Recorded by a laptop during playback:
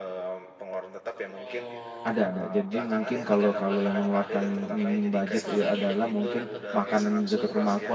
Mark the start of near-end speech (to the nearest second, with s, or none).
2 s